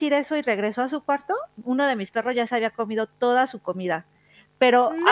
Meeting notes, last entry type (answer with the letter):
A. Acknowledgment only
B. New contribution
A